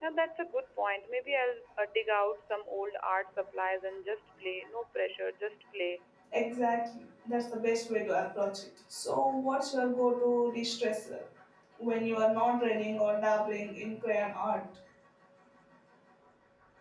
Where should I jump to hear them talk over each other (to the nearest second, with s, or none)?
none